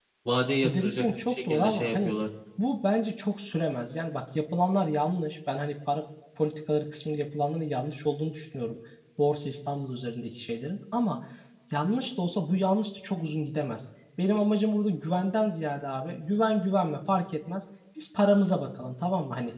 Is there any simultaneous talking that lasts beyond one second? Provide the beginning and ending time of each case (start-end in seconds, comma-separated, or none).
0.6-2.1